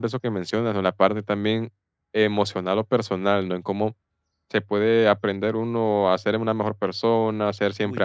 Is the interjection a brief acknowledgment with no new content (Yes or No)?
Yes